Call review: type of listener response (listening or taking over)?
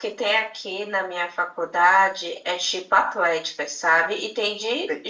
listening